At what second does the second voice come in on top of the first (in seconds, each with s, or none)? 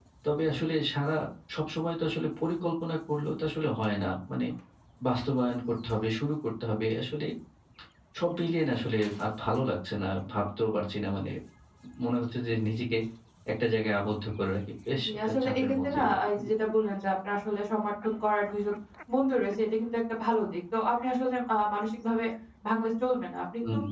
15.0 s